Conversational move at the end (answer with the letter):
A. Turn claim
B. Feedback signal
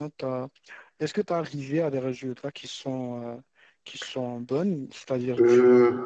B